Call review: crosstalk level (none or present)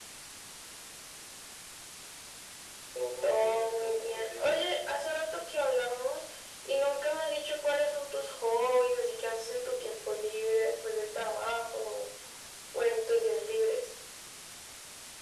present